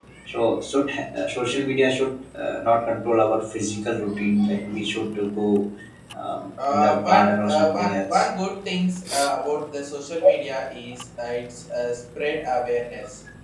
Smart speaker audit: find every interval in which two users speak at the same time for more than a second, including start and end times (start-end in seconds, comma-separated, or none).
6.7-8.3